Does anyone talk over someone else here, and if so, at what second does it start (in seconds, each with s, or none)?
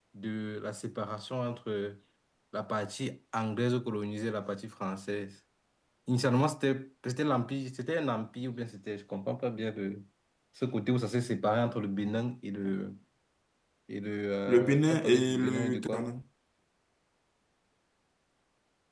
14.5 s